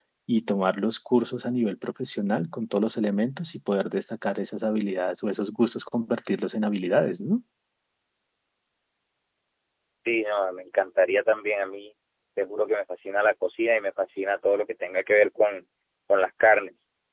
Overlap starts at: none

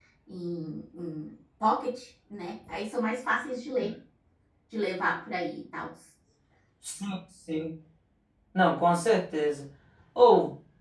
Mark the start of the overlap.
none

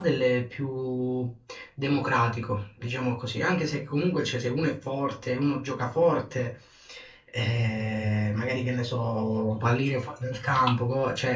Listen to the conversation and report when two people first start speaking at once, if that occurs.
none

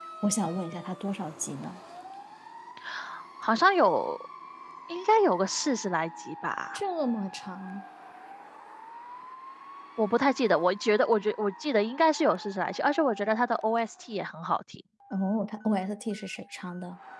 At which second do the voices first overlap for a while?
none

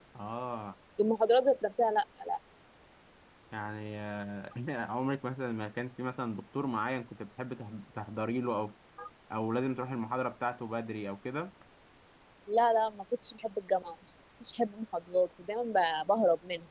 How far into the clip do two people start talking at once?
none

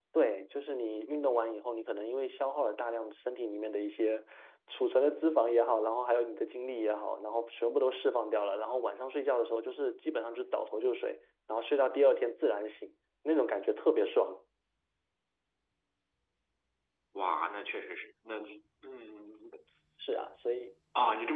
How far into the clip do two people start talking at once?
none

